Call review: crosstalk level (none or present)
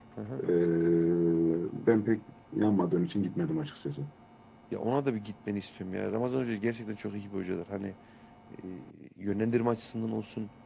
none